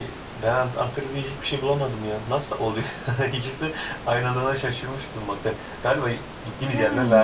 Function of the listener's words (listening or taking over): listening